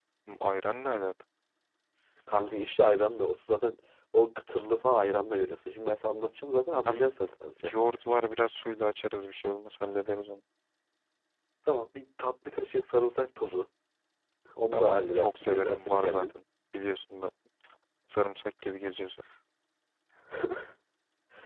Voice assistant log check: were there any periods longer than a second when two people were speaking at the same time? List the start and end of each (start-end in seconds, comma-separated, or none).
14.7-16.3